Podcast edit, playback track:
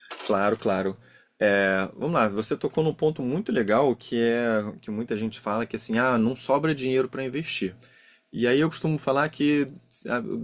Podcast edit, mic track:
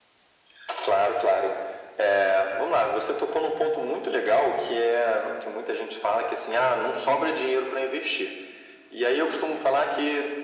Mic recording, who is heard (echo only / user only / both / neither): echo only